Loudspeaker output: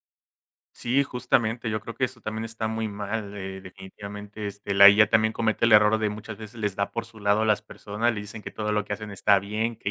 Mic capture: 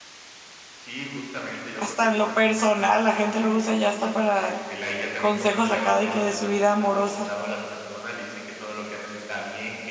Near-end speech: present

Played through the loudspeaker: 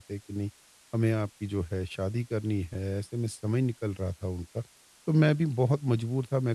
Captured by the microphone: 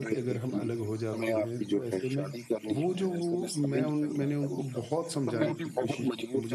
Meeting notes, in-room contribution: present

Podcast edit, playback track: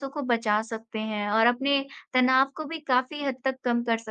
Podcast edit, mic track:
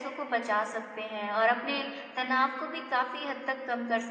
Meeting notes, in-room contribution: none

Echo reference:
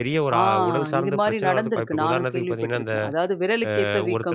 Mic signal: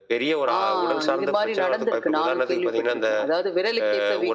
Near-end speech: none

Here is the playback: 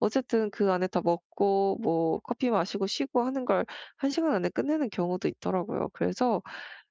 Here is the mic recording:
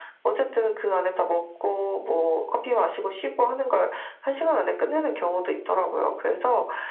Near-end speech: none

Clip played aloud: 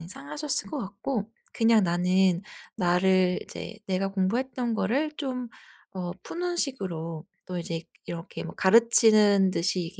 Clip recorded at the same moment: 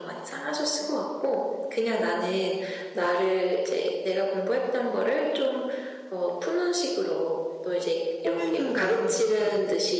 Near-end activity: present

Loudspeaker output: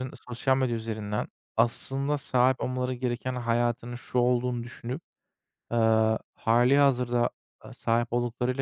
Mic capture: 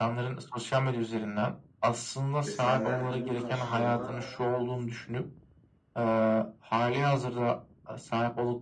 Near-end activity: present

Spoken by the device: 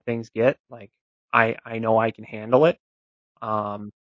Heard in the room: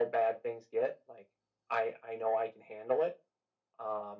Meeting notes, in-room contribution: none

